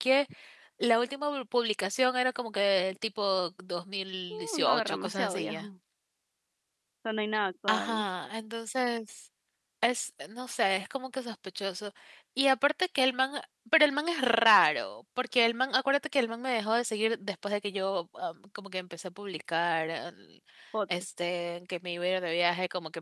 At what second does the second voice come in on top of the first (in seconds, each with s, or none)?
4.3 s